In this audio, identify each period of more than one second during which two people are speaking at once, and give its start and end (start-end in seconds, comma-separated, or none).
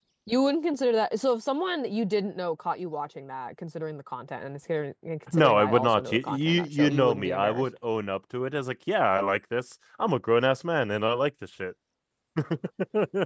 5.3-7.7